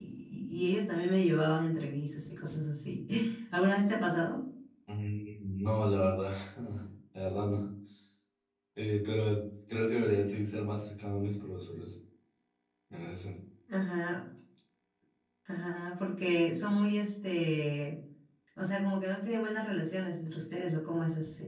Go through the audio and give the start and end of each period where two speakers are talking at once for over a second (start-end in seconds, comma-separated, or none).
none